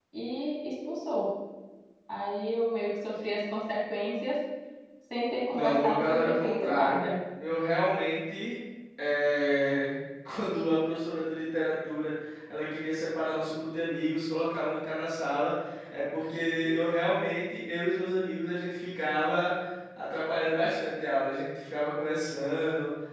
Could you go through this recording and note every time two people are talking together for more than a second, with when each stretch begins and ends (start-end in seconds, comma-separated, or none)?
5.5-7.0